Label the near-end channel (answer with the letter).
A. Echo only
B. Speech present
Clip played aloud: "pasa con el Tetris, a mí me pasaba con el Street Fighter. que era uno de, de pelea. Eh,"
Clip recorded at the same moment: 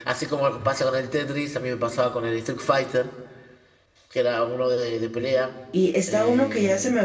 B